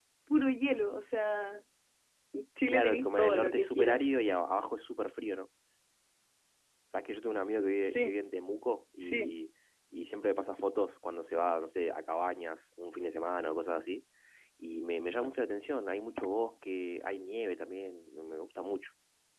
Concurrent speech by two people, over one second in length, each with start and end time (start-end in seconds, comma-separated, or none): 2.7-4.2